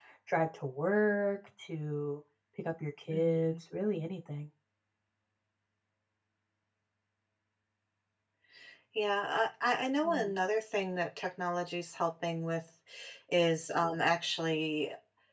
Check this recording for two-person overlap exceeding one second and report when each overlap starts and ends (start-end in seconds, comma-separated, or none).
none